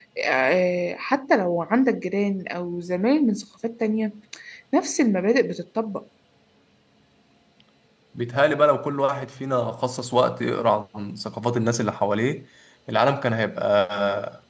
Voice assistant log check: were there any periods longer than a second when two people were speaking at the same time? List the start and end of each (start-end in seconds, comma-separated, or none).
none